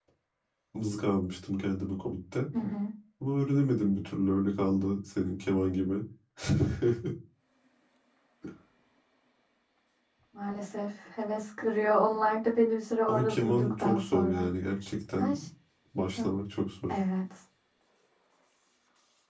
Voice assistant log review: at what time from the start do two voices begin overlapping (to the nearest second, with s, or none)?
13 s